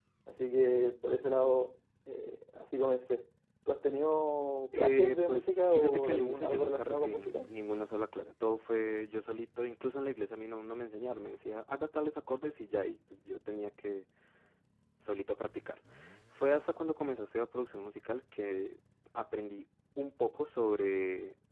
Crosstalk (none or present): present